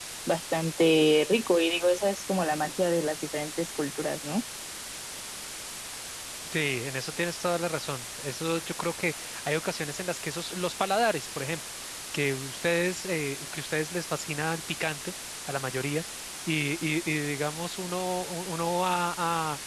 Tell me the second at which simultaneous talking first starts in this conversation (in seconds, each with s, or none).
none